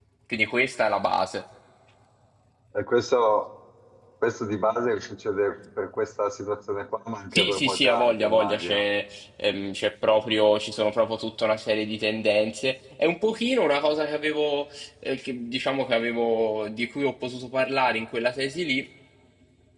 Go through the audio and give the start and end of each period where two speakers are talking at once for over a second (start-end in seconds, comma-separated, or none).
7.3-8.8